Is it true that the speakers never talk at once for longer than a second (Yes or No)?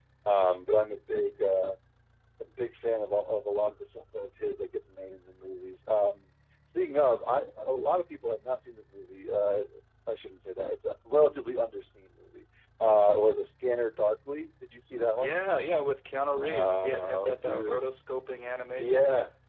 No